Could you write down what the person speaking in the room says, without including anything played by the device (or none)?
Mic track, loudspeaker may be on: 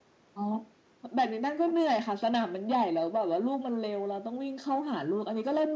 none